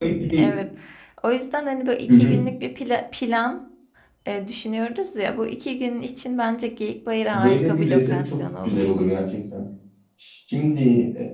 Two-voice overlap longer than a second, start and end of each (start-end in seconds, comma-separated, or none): 7.3-8.9